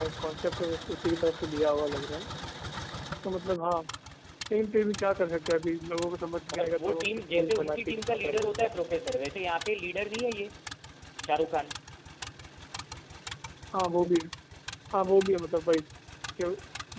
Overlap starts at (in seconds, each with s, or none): 6.5 s